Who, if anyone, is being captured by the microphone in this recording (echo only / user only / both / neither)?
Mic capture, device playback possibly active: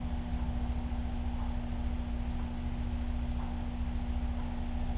neither